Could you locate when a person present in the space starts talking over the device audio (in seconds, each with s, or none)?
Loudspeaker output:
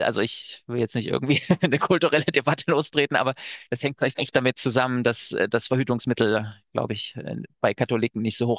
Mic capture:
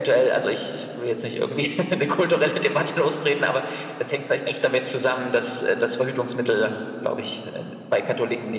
none